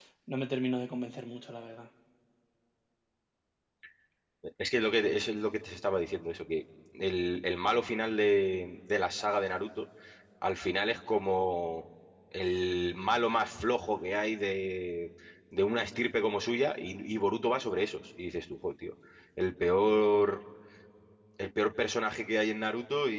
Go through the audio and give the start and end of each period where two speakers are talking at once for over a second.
none

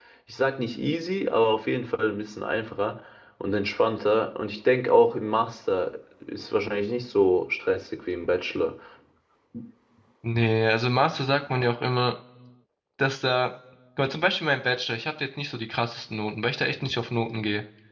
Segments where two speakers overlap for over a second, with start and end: none

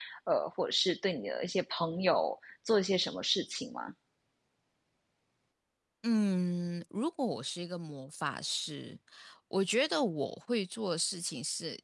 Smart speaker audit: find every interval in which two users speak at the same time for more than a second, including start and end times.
none

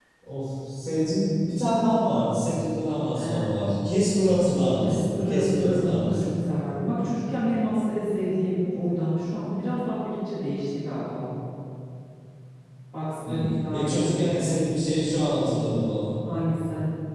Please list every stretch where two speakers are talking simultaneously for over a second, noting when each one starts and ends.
4.7-6.3, 13.3-14.6

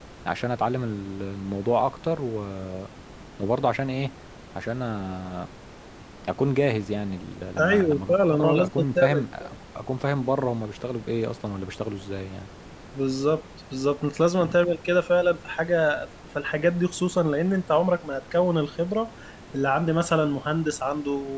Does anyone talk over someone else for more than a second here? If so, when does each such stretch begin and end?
7.6-9.2

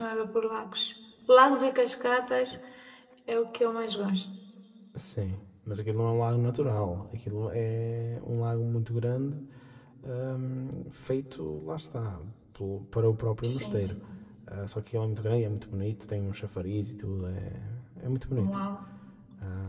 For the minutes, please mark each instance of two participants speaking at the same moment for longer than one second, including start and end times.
none

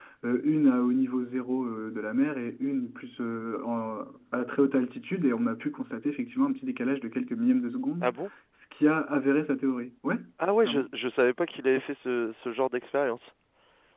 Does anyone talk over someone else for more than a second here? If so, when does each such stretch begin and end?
none

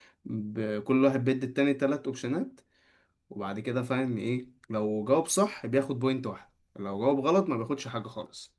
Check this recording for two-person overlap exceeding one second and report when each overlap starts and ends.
none

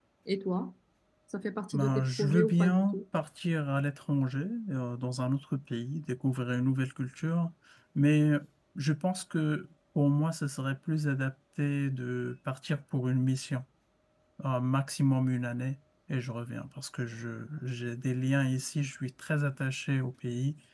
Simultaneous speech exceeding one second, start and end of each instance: 1.7-3.0

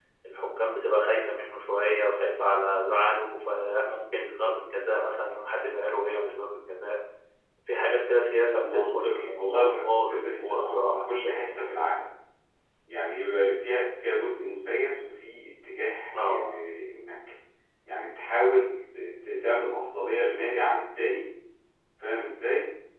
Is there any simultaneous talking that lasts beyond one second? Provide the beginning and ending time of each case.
8.6-11.6

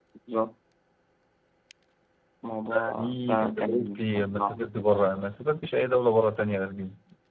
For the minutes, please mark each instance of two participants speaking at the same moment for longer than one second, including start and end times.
3.0-4.5

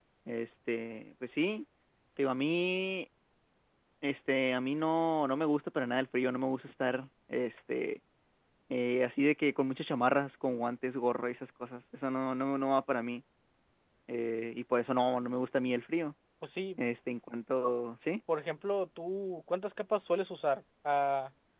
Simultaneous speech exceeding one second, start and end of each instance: none

